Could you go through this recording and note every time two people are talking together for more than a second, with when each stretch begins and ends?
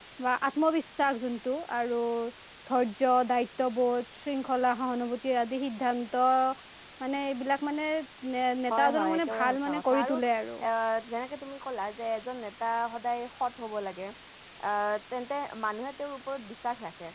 8.7-10.1

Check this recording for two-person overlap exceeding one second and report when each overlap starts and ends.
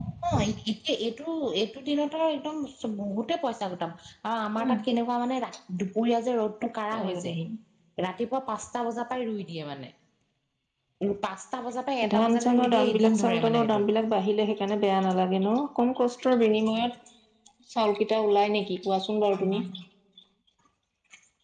12.1-13.8

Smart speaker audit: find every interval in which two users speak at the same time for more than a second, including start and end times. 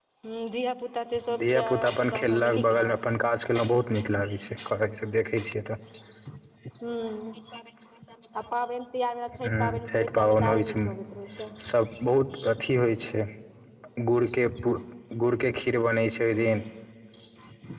1.4-3.0, 9.6-10.9

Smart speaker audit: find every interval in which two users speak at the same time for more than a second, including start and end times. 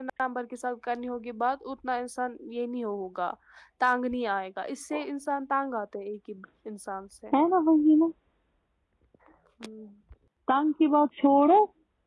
none

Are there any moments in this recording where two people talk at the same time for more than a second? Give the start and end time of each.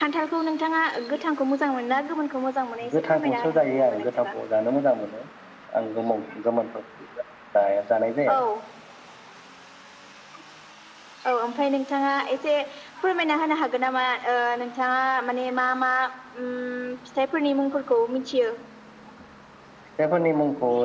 2.9-4.1

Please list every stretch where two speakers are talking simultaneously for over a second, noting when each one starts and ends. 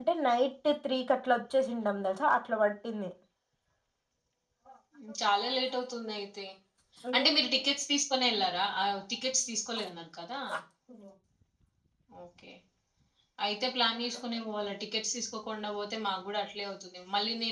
none

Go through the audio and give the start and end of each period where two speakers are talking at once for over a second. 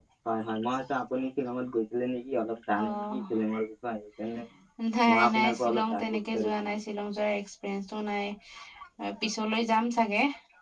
5.1-6.7

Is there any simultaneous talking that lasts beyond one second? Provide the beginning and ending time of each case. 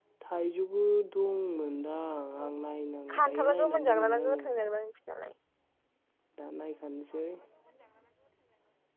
3.1-4.4

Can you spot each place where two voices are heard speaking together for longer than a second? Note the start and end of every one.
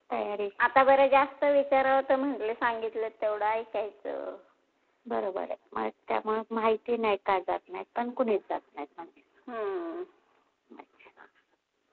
none

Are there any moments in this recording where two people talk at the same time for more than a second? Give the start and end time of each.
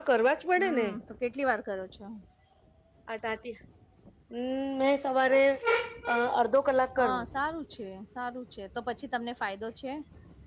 none

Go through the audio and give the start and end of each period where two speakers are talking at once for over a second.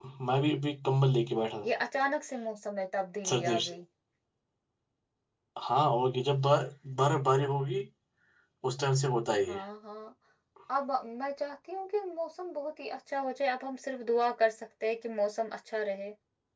none

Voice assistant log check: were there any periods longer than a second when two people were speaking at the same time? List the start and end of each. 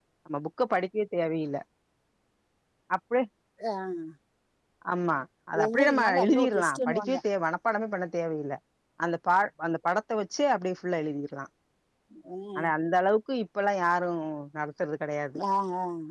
5.6-7.2

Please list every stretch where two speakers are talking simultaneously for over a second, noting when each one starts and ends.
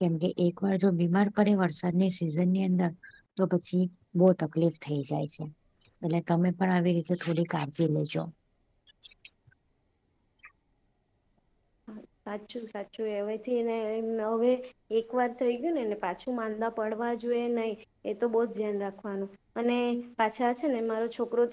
none

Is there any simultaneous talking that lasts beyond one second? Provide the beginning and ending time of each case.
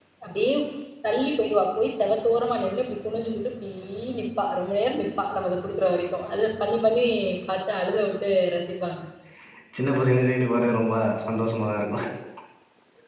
none

